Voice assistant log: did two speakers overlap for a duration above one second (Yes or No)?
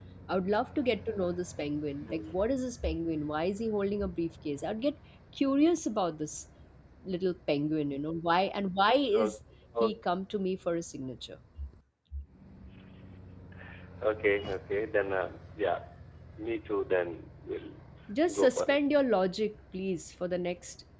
No